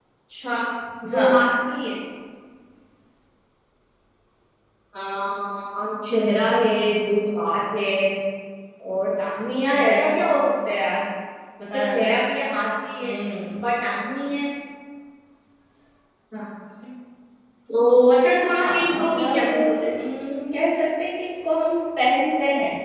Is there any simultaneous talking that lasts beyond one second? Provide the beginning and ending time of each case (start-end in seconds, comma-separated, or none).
18.6-19.8